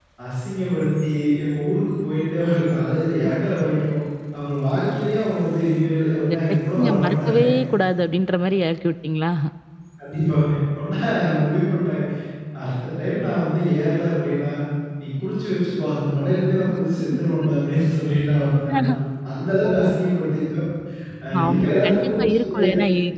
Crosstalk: present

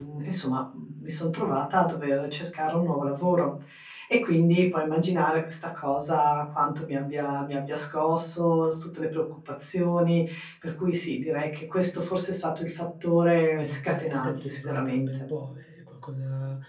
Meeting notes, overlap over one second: present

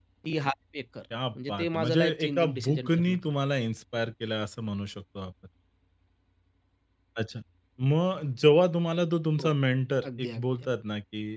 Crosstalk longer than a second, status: present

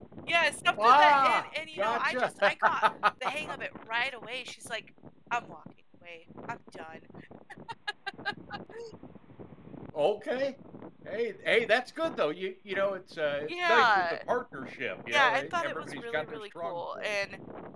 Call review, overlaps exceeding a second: present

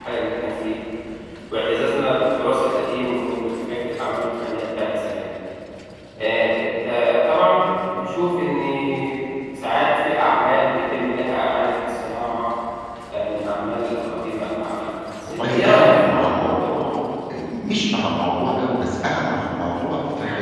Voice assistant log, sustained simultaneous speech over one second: present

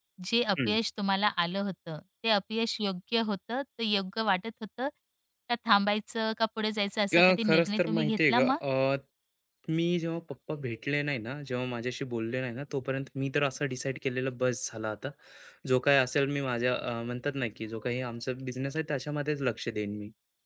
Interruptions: present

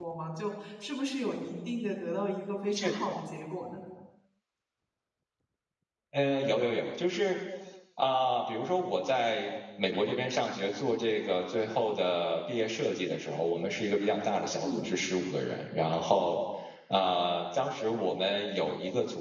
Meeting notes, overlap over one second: none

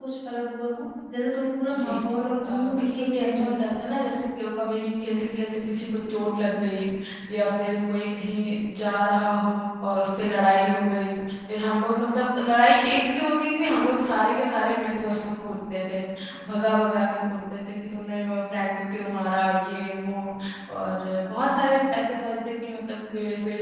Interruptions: present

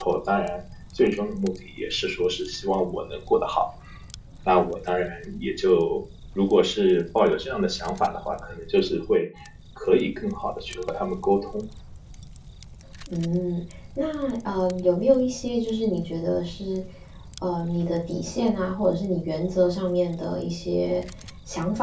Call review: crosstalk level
none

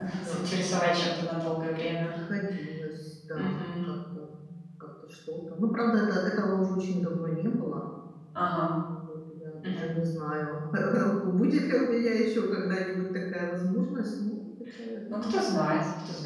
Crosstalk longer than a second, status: none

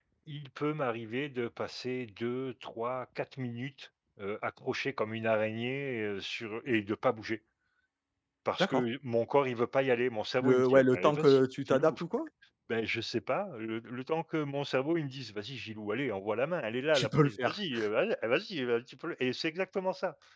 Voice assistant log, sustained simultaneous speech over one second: present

